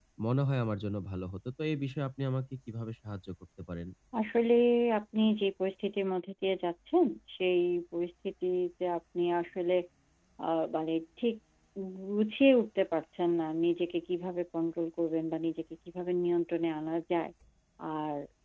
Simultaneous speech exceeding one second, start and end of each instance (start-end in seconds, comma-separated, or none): none